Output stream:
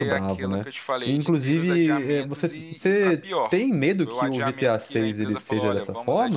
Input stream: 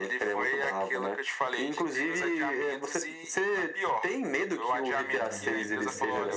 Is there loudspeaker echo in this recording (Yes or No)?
Yes